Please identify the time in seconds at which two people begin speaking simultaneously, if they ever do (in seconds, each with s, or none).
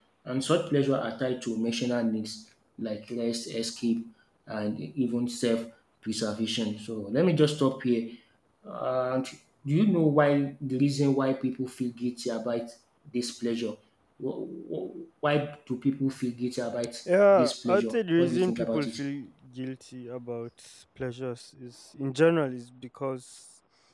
17.3 s